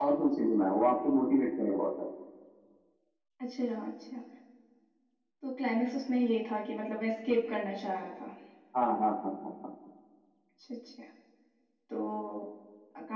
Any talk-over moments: No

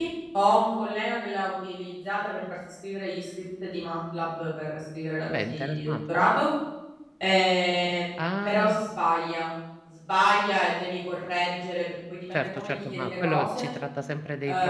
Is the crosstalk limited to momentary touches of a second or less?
No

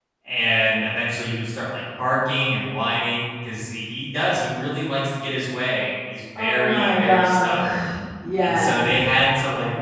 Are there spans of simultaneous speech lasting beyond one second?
Yes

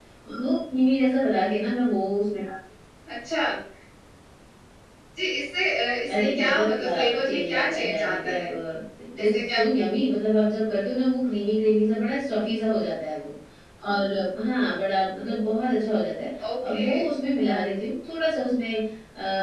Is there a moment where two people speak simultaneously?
Yes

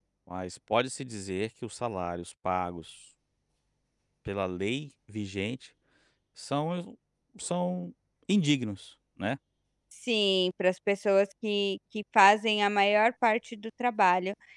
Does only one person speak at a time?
Yes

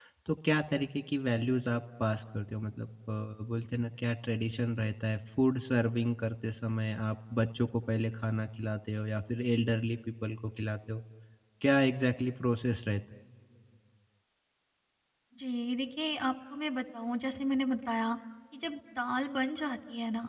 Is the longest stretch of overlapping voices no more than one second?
Yes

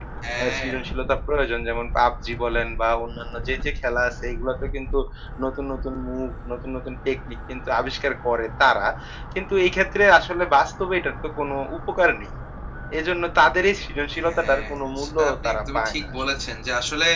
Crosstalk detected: Yes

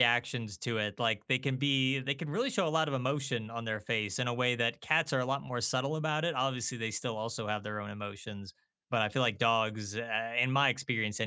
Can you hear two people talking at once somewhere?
No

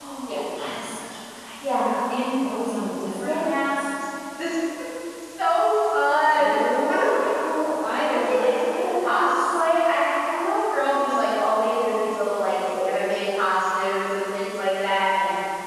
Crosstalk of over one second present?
Yes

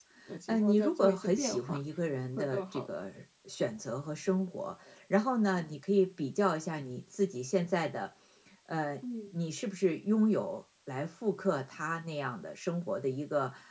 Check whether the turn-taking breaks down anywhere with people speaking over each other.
Yes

